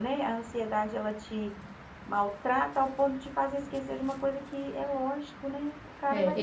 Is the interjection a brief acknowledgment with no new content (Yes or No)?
No